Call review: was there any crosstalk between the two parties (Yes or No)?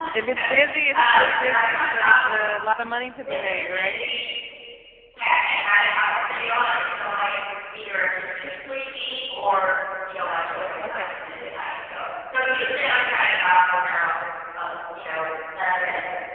Yes